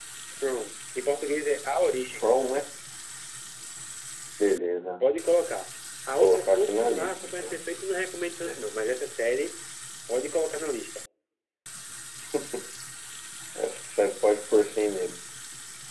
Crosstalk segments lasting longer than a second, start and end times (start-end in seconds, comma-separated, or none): 6.2-7.6